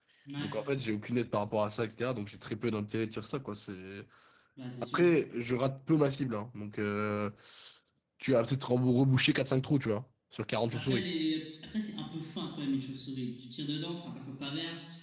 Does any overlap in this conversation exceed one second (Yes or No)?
No